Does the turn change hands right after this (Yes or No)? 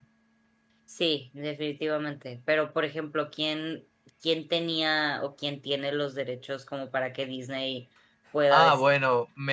Yes